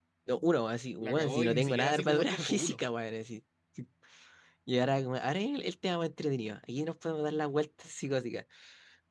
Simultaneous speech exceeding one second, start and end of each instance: 1.0-2.8

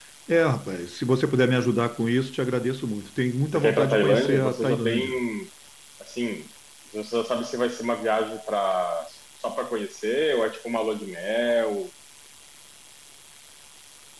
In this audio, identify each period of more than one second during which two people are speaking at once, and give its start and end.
3.5-5.0

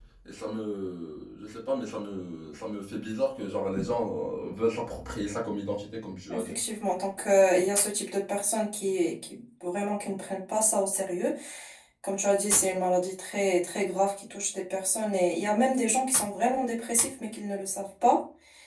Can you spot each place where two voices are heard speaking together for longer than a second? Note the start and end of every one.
none

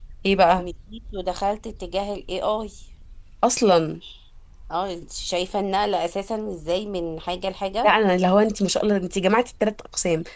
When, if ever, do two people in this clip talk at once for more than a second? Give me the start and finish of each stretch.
none

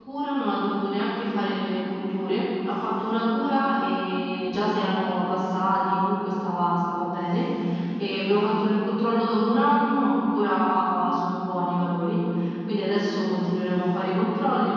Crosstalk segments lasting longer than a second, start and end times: none

